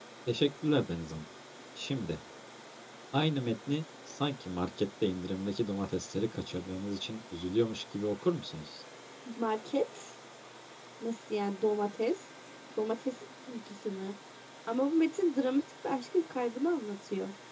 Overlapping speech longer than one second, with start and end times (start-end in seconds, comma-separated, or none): none